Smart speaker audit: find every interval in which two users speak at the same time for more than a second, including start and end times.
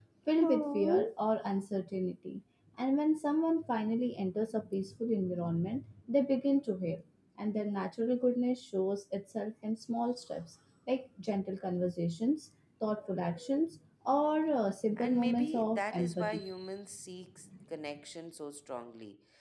15.0-16.5

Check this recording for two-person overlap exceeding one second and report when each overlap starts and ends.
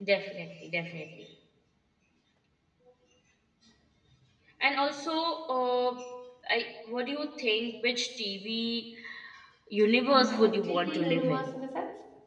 10.1-11.4

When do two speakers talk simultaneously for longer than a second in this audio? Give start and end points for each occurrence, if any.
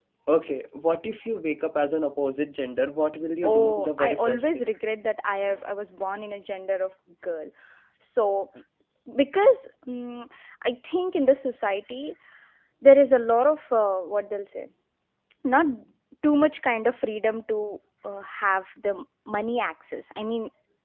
3.4-4.7

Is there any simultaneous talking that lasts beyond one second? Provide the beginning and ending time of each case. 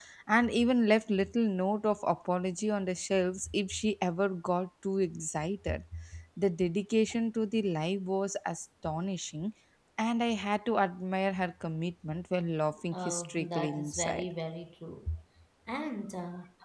12.9-14.2

